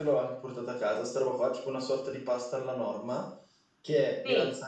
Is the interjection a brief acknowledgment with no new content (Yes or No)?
Yes